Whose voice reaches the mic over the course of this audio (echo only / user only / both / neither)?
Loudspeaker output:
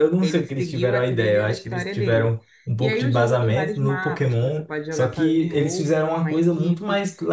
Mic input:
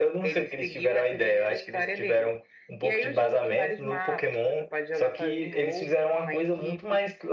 echo only